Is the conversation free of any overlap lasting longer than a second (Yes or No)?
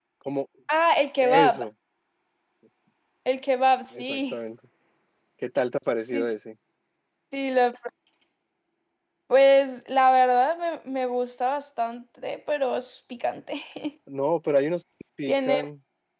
Yes